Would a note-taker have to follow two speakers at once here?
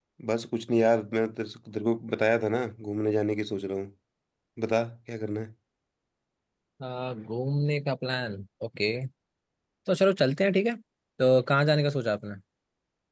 No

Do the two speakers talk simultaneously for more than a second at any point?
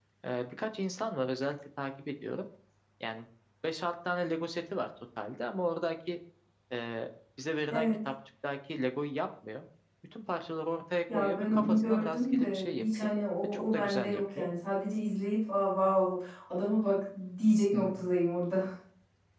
Yes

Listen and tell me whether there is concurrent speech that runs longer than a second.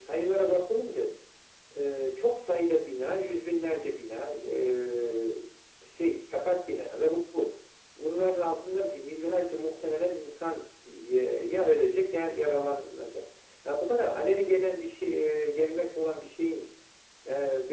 No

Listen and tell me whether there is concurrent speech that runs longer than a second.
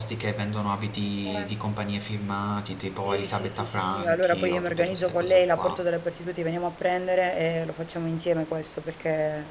Yes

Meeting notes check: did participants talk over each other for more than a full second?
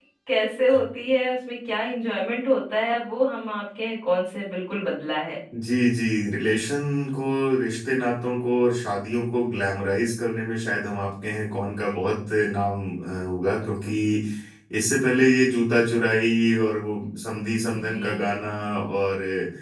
No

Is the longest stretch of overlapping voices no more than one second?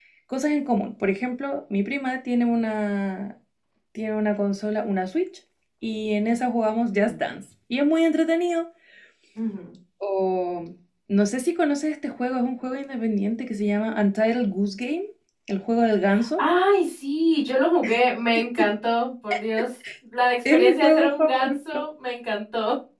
No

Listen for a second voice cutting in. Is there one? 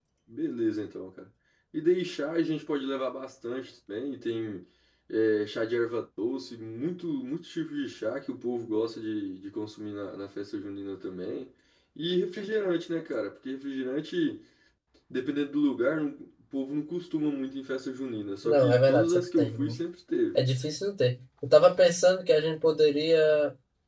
Yes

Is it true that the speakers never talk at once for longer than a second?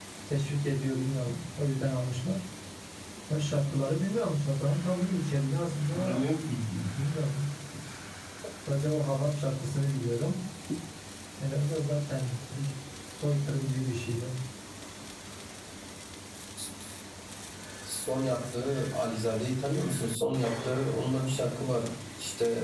Yes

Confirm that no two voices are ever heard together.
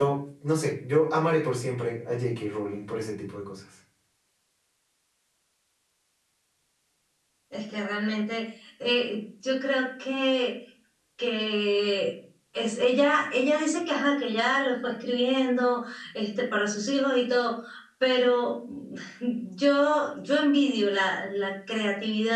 Yes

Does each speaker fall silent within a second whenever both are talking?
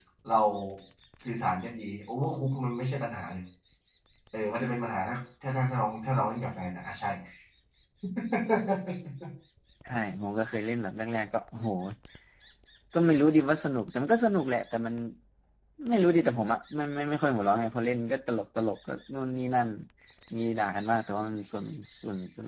Yes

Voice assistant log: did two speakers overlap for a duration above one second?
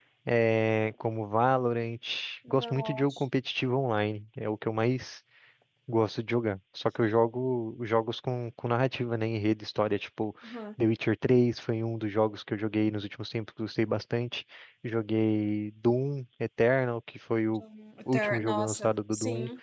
Yes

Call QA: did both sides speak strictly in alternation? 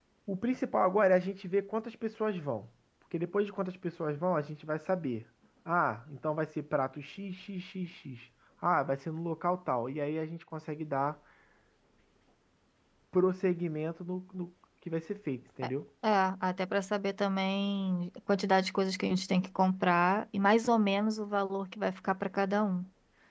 Yes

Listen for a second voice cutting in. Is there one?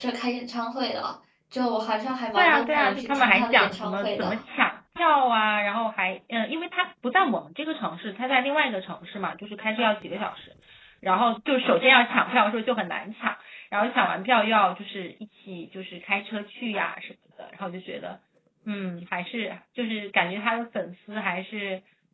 Yes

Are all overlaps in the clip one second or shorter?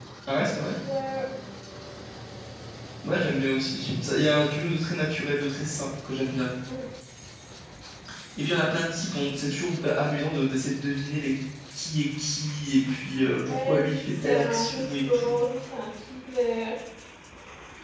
No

